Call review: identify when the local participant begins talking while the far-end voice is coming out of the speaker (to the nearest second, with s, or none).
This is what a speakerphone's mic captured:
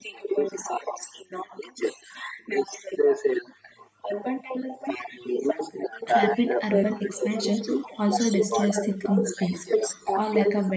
6 s